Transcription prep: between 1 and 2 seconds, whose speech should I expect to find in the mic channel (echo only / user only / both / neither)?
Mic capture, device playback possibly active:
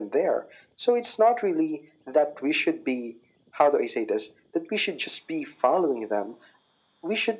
echo only